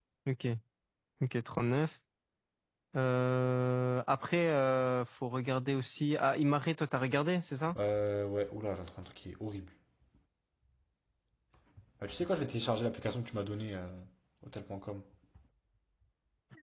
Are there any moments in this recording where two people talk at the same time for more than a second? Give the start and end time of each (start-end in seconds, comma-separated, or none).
none